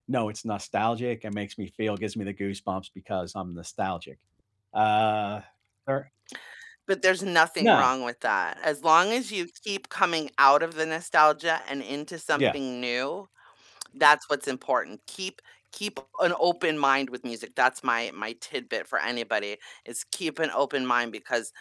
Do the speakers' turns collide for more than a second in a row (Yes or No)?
No